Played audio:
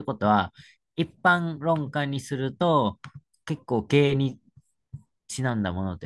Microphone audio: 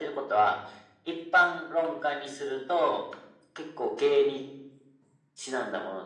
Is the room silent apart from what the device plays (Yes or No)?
Yes